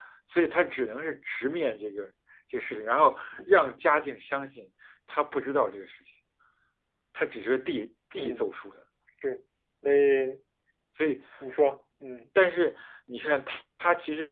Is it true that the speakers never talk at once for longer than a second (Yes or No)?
Yes